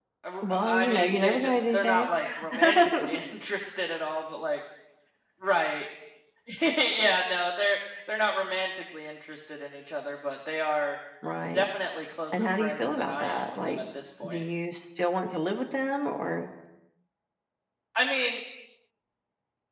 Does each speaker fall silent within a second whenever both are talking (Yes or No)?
No